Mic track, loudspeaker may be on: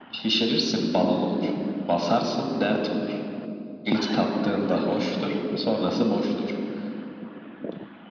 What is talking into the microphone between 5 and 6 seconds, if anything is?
echo only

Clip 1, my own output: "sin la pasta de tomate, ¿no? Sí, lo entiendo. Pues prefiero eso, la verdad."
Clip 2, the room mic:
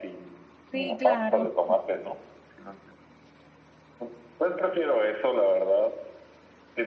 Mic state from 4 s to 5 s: echo only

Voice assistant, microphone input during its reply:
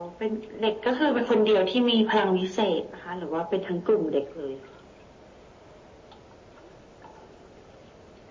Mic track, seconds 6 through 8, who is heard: neither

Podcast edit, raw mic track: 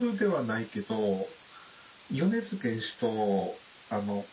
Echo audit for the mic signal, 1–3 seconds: echo only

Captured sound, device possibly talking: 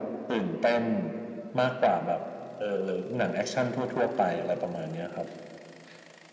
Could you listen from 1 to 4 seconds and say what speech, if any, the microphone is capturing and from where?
echo only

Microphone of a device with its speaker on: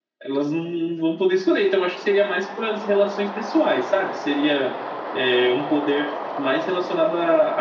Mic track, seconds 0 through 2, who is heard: echo only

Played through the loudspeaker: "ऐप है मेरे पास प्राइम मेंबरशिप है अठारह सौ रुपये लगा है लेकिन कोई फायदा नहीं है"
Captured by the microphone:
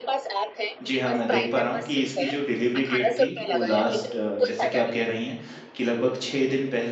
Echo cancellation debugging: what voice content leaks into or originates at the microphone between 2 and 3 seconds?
both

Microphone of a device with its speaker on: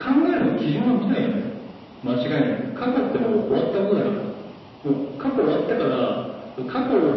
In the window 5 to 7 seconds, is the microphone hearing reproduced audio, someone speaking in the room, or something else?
echo only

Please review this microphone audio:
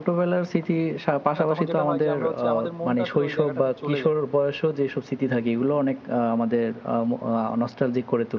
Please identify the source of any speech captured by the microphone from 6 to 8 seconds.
echo only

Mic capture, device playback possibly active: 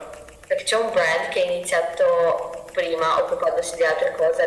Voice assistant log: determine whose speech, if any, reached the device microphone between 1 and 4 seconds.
echo only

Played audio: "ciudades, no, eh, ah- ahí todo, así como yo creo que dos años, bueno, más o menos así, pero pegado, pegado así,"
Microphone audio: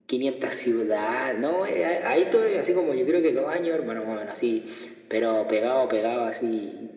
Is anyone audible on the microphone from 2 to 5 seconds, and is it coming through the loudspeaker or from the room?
echo only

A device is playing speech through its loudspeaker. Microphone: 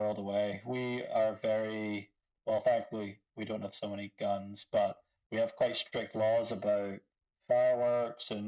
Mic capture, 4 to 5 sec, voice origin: echo only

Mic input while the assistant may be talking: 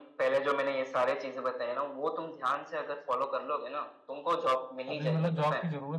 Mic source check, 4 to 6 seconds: both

